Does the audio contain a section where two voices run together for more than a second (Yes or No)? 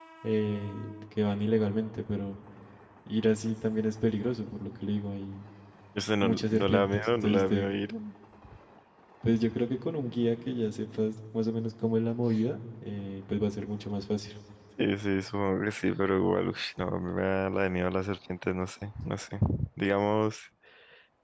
Yes